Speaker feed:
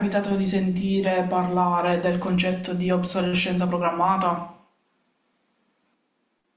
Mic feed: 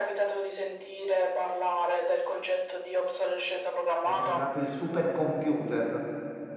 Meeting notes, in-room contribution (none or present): present